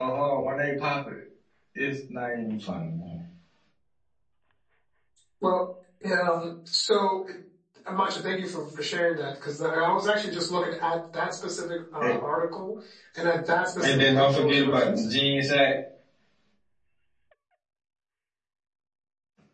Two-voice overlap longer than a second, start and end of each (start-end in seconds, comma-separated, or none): 13.8-15.1